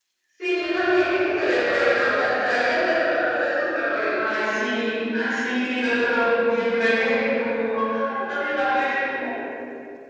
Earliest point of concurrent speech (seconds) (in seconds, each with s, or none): none